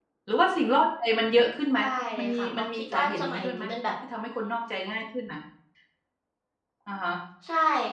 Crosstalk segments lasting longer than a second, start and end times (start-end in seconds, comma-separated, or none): 2.2-3.7